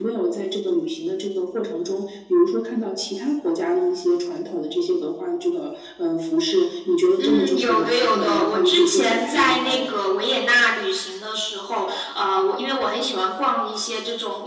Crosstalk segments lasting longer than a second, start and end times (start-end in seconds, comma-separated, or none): 7.2-9.9